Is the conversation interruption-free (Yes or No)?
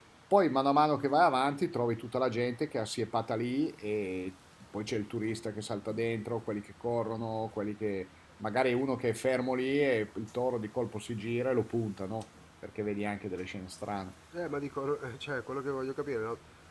Yes